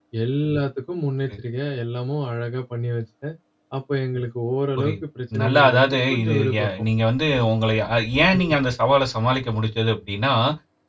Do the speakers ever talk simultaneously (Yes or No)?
Yes